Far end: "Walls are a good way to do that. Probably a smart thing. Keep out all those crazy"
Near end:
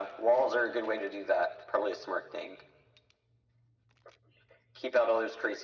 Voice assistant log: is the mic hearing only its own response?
Yes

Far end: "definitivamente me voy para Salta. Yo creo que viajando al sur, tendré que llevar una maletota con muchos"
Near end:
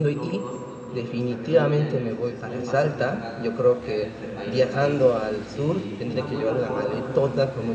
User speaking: Yes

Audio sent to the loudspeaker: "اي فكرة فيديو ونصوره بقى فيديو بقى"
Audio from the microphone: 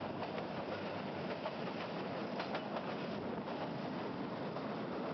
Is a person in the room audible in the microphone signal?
No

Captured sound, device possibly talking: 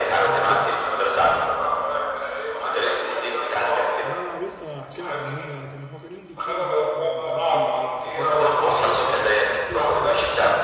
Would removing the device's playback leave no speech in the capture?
No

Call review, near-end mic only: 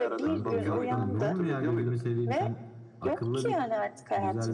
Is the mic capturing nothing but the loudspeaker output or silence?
No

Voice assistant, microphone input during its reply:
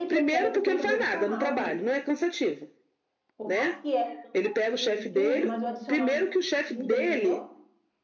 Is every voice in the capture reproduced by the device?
No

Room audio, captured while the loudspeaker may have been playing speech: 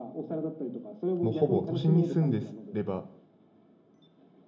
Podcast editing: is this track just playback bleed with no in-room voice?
No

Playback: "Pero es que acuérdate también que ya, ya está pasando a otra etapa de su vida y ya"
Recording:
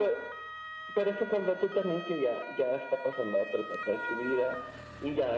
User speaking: No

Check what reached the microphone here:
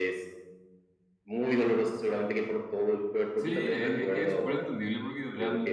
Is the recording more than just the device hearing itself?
Yes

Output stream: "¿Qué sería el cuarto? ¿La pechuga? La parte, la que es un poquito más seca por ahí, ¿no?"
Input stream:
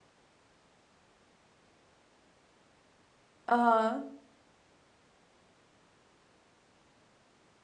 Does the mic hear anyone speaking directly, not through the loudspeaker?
Yes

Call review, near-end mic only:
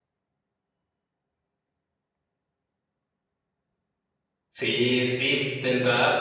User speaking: Yes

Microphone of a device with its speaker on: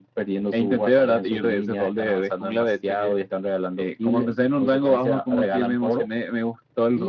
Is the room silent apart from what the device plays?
Yes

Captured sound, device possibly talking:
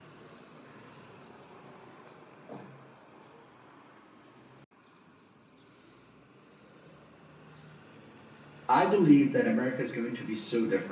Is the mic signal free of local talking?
No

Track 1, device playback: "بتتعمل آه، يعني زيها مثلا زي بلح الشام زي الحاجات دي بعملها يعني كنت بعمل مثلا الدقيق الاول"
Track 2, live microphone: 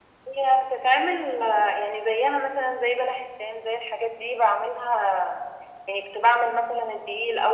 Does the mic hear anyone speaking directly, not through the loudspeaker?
No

